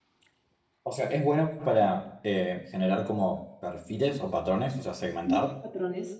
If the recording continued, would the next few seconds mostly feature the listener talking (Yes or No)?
Yes